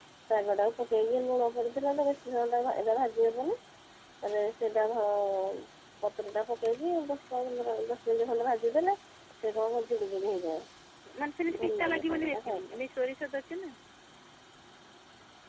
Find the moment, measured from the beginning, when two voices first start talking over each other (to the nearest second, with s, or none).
12 s